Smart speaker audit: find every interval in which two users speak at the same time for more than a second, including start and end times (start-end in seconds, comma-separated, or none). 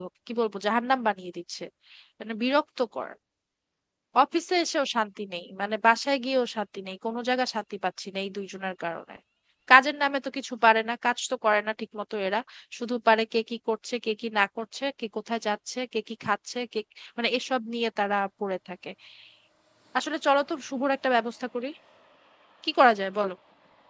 none